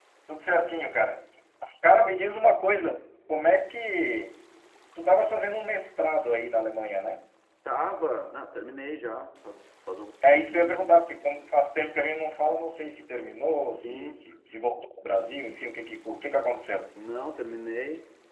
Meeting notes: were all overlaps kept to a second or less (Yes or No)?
Yes